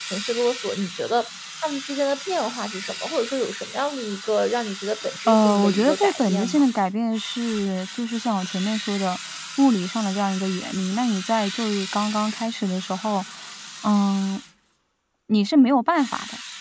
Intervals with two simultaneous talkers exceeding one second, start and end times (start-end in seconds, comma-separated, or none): 5.3-6.6